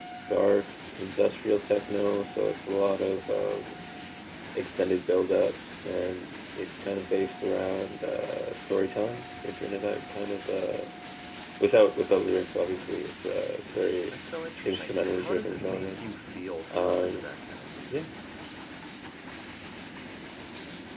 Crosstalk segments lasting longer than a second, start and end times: 14.6-16.0

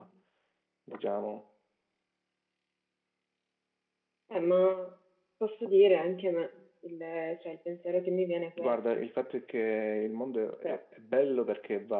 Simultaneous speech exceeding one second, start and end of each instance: none

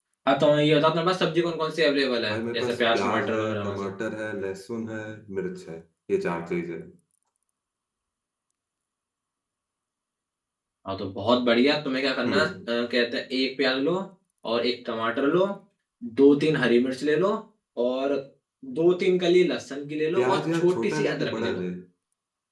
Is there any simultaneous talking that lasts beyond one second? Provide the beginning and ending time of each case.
2.3-3.9, 20.2-21.6

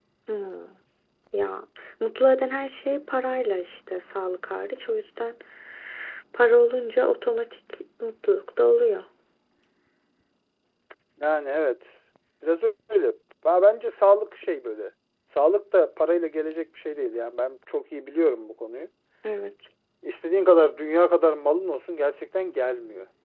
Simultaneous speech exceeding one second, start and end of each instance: none

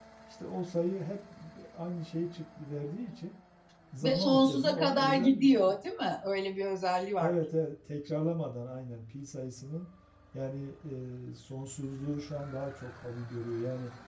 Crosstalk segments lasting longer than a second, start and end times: 4.0-5.6

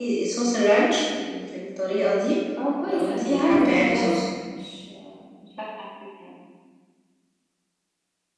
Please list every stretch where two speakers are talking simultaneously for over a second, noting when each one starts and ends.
2.8-4.2

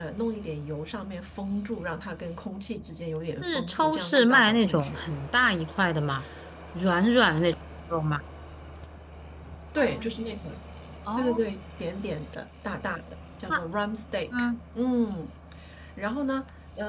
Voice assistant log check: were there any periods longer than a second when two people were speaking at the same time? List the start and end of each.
3.4-5.0

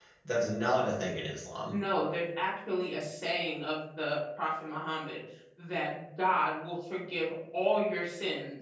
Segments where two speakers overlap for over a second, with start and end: none

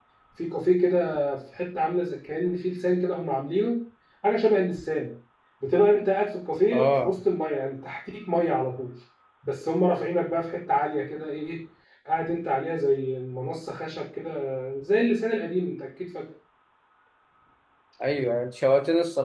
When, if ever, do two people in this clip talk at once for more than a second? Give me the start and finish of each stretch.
none

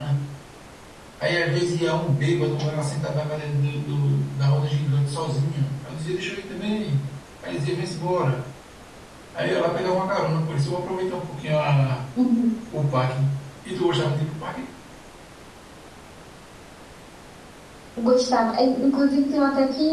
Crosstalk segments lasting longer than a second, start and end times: none

